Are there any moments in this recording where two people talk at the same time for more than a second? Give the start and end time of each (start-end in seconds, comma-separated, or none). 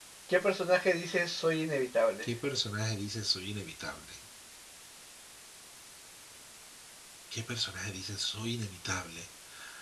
none